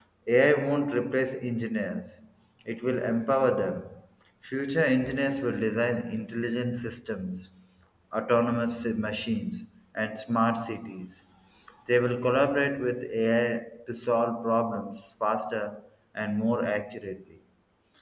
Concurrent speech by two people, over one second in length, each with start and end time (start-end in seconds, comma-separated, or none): none